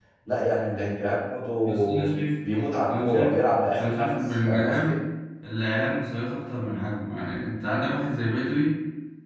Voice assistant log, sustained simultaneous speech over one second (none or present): present